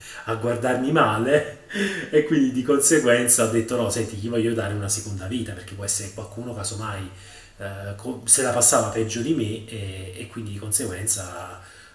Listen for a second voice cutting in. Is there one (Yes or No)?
No